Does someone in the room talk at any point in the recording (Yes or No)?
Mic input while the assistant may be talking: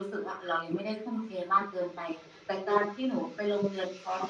No